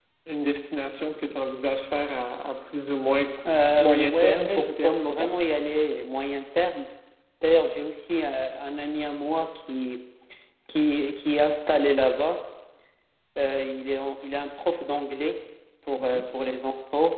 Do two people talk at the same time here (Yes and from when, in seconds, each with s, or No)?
Yes, from 3.7 s